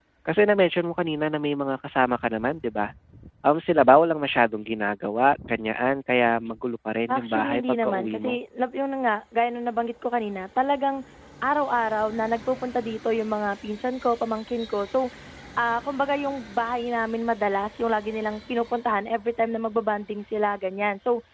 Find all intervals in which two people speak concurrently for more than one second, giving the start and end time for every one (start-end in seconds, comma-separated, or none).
7.1-8.4